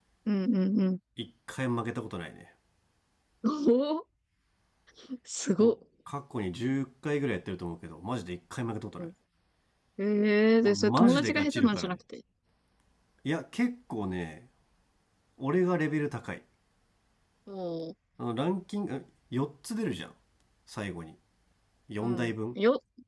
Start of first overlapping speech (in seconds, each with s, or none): 10.6 s